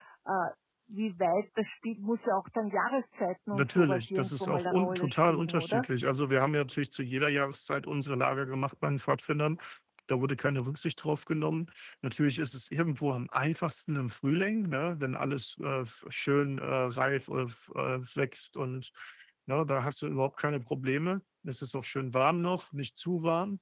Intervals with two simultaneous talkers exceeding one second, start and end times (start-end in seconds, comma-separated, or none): 3.5-5.8